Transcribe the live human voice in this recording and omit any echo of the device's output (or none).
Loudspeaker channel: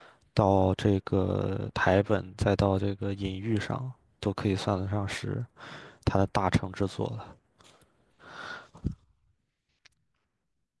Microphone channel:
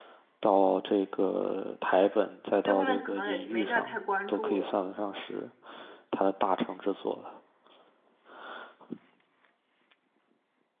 所以后面就可能也没再太关注了。